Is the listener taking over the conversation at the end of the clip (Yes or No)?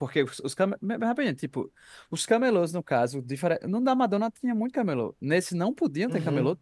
Yes